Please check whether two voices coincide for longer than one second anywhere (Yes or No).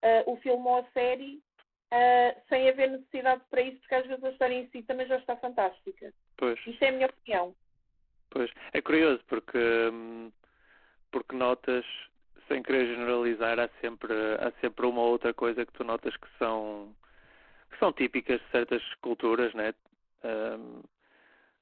No